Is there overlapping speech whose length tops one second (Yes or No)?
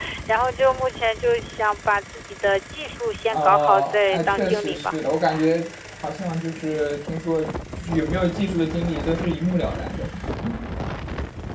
Yes